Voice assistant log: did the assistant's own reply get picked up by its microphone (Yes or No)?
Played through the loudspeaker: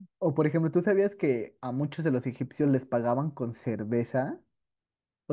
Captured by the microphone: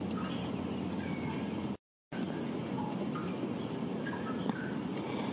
No